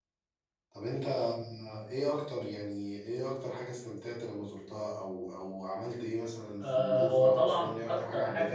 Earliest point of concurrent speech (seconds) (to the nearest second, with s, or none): 7 s